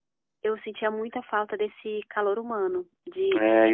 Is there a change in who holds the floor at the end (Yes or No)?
Yes